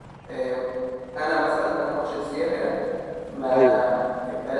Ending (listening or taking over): listening